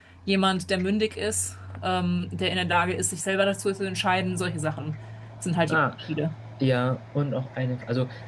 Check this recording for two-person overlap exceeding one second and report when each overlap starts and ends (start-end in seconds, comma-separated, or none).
none